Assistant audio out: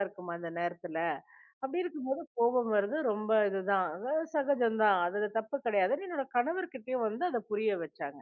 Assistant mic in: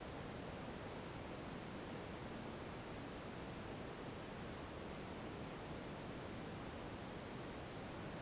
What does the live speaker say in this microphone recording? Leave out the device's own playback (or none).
none